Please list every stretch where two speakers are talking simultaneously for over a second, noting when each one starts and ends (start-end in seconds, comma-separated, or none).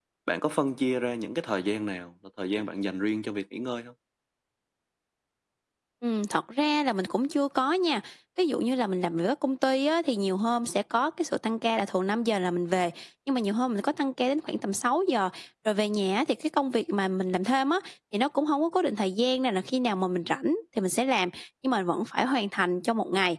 none